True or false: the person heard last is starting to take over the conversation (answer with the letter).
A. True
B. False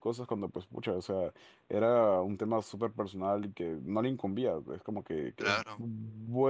B